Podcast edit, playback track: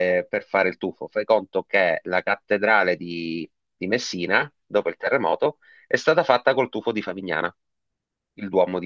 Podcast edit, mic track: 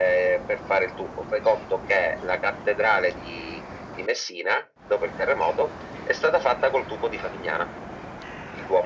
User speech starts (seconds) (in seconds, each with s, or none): none